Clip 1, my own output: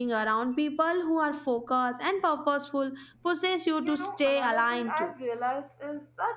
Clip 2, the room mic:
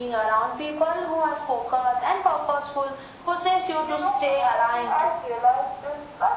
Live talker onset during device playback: none

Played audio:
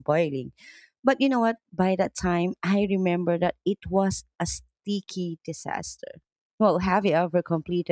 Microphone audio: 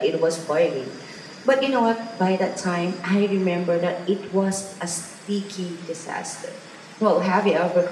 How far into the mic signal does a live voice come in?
none

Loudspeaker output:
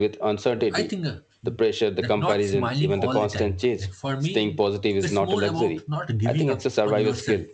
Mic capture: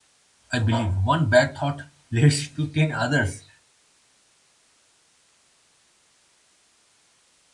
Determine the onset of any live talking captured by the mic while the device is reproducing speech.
0.5 s

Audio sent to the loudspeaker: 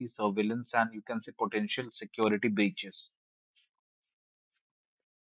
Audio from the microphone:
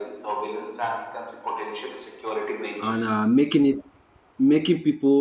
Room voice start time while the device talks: 2.8 s

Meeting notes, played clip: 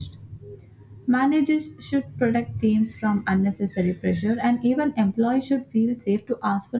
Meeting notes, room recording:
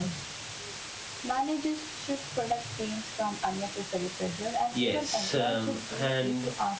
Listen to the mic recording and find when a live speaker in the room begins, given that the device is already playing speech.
4.7 s

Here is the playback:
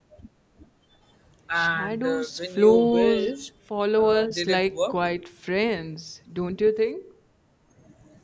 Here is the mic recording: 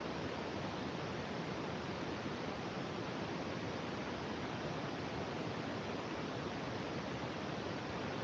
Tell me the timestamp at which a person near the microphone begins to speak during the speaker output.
none

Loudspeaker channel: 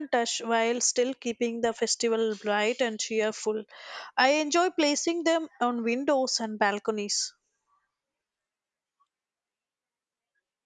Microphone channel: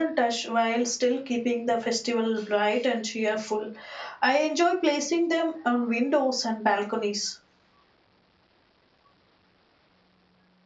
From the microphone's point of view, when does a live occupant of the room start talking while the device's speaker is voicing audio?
none

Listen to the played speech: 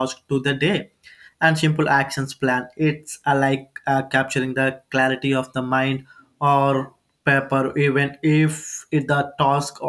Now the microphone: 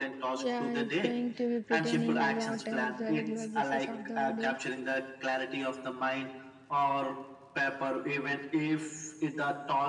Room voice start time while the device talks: 0.3 s

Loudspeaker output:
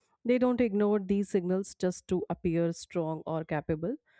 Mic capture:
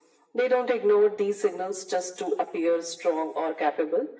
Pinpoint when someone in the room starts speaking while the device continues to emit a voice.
none

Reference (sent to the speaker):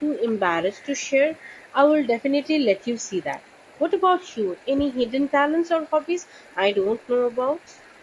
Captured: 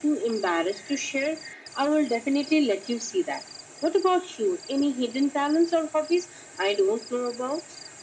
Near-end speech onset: none

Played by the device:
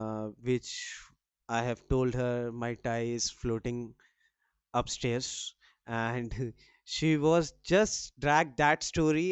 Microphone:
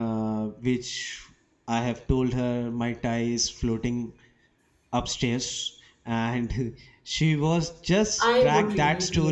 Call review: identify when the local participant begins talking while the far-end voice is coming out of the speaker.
8.2 s

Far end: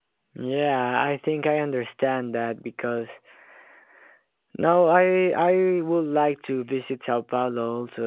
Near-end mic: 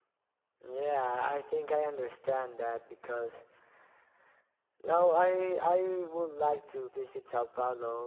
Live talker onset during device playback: none

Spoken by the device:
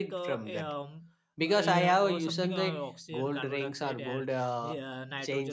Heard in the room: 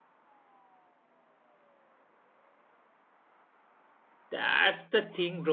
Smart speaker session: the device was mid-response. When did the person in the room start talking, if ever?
4.3 s

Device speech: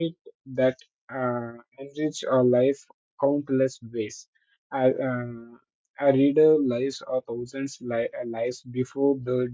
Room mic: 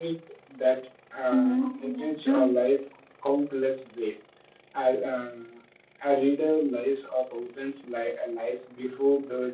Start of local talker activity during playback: 1.3 s

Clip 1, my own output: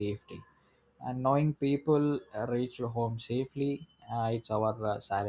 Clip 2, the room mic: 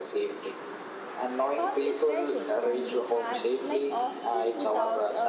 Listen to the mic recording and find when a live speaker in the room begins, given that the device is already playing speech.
1.6 s

